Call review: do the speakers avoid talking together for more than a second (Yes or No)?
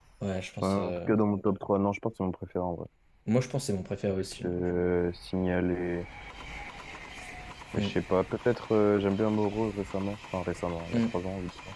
Yes